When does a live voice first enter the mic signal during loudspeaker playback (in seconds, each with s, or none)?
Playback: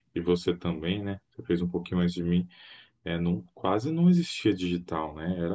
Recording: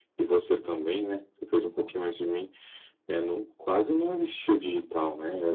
none